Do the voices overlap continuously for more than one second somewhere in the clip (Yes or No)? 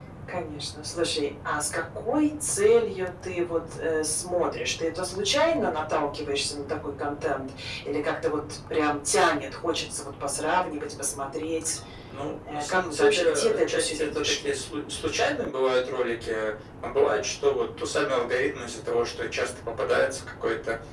Yes